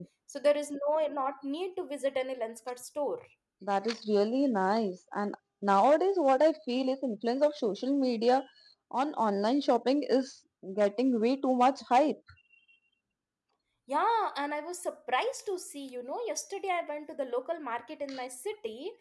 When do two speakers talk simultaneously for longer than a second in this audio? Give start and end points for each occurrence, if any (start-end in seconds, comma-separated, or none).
none